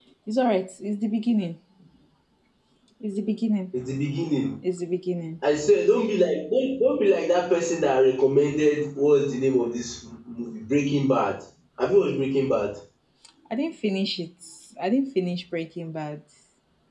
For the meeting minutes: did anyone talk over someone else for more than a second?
No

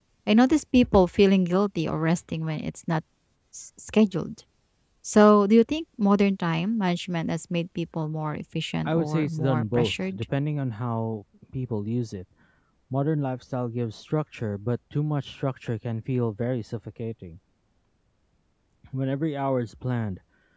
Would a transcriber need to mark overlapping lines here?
Yes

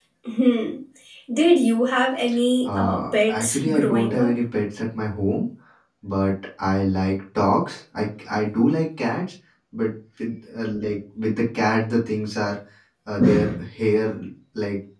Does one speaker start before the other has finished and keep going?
Yes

